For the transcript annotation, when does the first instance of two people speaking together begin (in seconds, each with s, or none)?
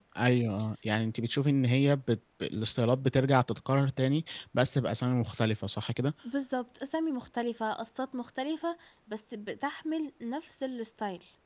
none